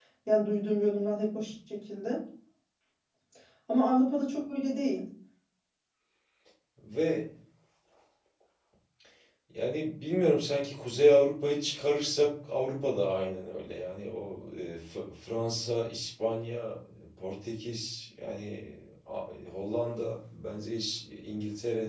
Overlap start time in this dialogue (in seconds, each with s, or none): none